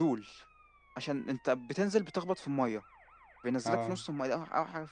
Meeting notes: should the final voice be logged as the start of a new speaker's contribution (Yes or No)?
No